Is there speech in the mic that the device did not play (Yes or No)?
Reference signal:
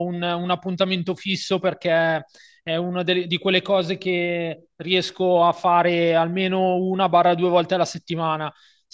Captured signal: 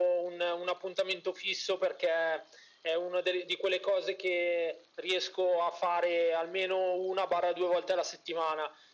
No